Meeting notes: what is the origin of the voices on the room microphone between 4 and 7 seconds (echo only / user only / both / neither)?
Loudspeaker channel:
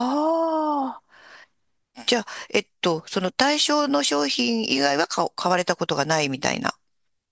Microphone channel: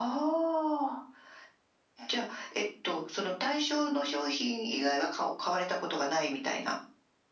echo only